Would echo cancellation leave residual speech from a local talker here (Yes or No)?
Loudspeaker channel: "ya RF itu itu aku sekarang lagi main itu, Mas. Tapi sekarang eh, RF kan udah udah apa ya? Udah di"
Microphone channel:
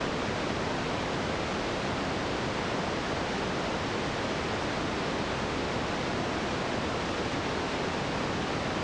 No